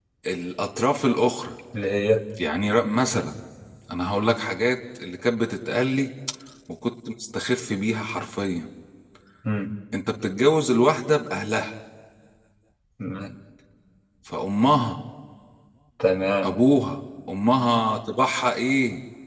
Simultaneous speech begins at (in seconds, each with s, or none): none